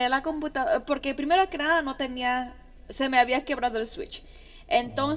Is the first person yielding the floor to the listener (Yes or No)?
No